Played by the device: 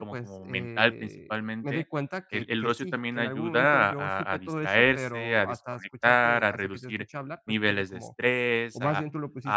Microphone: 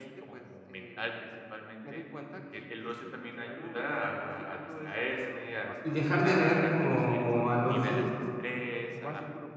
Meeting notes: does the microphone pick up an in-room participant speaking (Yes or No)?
Yes